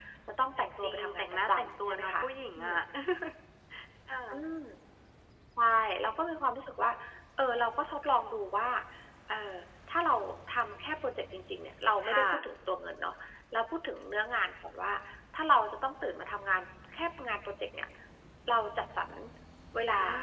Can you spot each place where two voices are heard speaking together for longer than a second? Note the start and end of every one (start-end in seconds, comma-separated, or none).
0.6-2.1